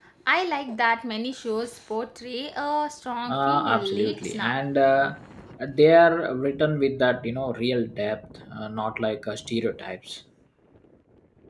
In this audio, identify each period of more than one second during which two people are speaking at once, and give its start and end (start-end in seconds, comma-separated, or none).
3.3-4.6